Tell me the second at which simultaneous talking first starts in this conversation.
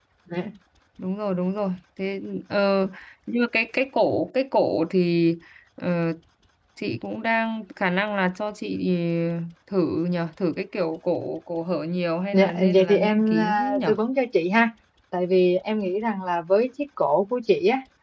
12.3 s

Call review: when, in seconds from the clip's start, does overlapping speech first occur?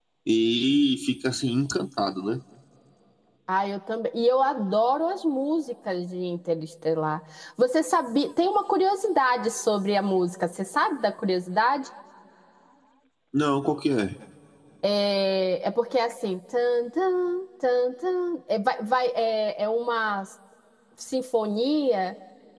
none

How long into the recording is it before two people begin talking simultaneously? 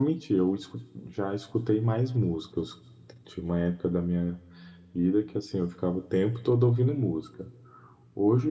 none

